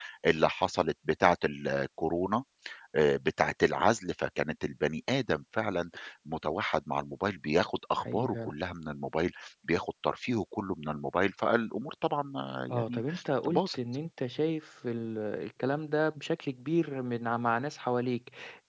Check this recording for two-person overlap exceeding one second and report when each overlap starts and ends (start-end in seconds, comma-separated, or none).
none